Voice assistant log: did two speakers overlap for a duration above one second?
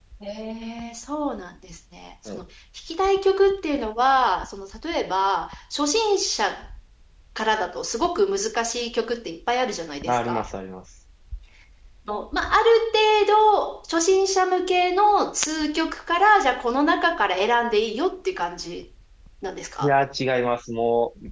No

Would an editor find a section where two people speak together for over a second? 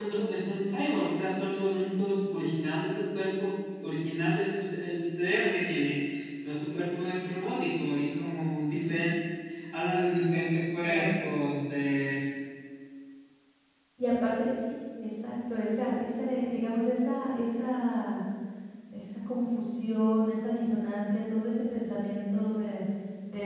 No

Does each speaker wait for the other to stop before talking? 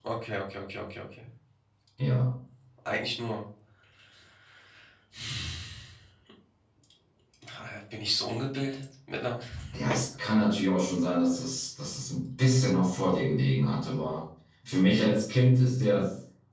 Yes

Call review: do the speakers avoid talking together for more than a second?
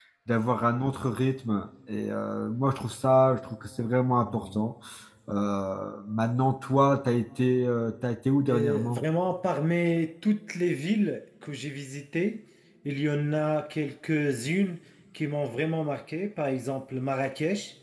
Yes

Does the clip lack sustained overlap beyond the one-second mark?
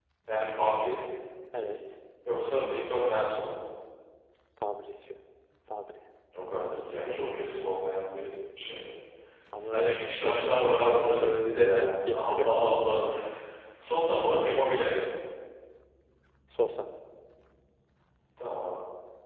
No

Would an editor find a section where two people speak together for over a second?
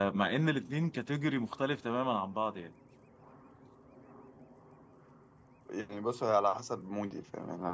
No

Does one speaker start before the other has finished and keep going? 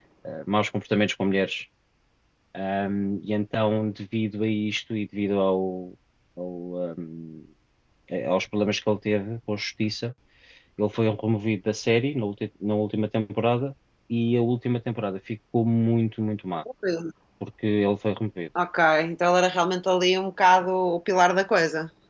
No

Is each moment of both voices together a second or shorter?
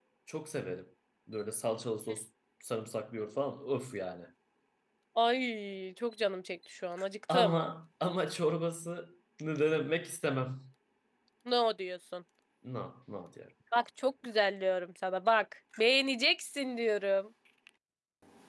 Yes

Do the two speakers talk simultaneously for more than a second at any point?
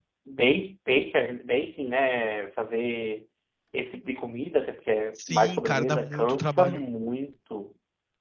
Yes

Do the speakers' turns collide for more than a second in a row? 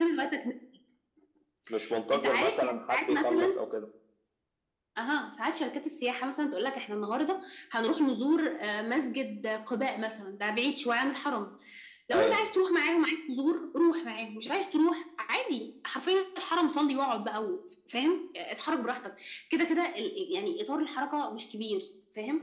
Yes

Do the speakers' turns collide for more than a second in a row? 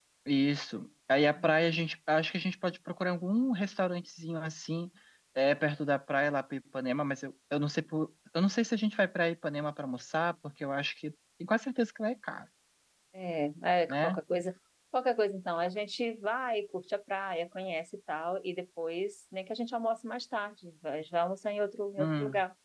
No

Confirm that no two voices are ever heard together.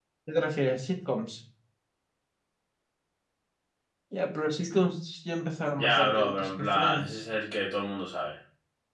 No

